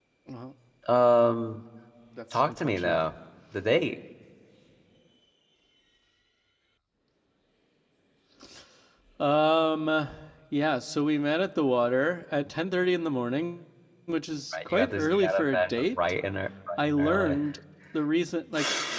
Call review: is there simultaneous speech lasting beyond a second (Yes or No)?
Yes